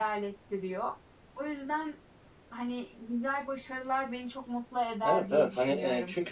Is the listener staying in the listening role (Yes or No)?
No